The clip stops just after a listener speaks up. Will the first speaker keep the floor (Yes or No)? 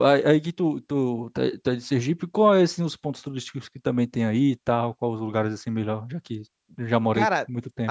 No